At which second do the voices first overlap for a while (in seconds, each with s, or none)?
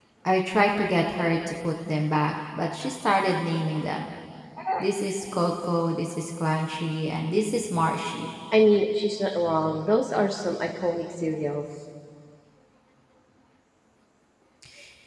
none